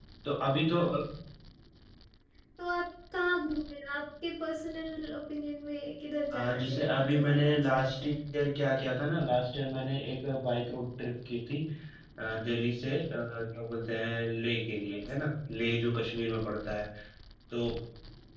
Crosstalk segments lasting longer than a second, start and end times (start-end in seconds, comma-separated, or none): 6.3-8.1